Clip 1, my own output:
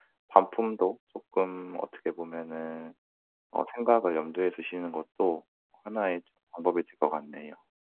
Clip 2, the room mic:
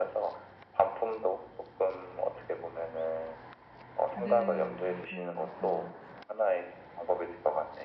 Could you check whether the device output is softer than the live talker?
No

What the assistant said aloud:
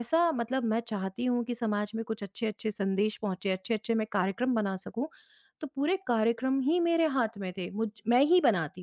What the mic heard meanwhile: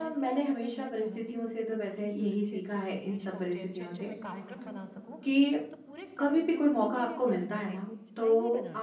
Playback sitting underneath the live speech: Yes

